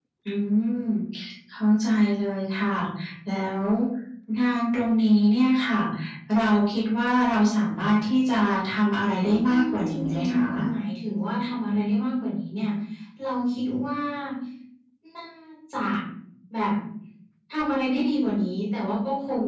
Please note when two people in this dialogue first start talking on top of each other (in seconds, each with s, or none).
9.2 s